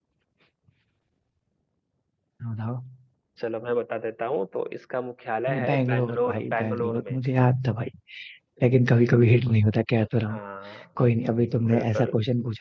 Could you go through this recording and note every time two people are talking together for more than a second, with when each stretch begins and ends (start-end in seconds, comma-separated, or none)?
5.6-7.2